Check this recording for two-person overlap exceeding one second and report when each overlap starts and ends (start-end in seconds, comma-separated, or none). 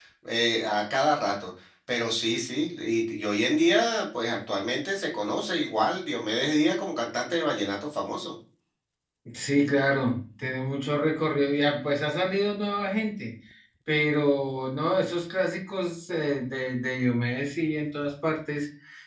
none